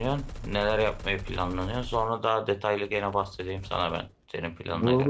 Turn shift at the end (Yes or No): Yes